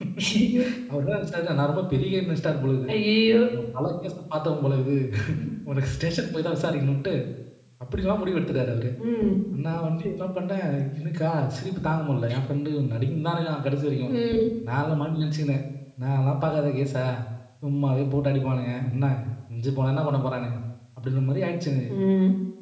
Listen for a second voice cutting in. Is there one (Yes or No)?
No